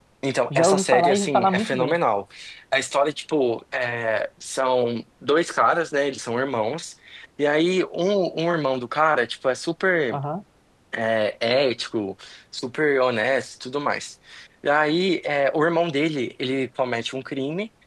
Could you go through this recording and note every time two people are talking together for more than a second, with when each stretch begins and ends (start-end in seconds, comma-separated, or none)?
0.5-1.9